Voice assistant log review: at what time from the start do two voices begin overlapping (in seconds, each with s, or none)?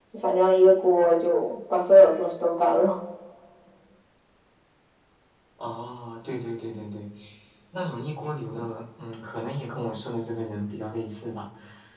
none